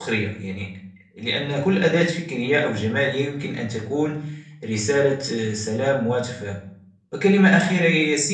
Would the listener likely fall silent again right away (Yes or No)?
Yes